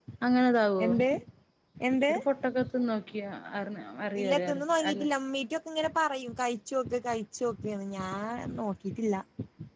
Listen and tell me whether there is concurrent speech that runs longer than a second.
No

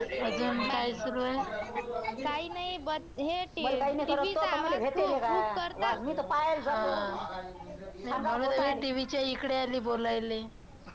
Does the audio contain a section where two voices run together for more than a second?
Yes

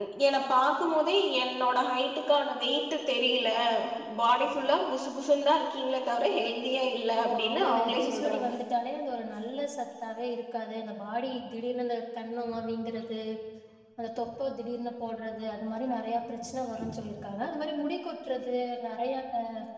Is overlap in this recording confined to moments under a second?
No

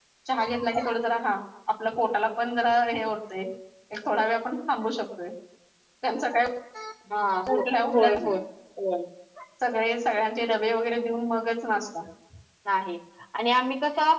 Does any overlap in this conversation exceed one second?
No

